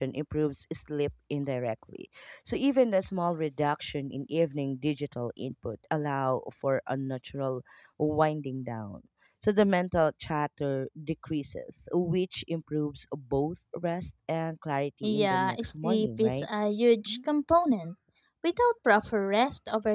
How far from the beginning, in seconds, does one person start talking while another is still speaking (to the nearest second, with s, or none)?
15 s